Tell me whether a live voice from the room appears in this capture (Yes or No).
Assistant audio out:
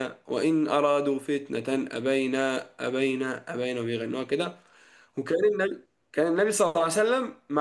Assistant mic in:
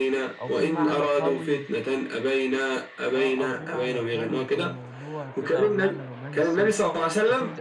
Yes